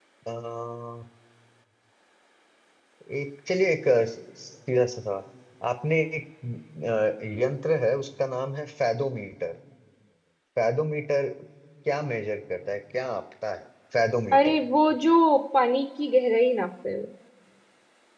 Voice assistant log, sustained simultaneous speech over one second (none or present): none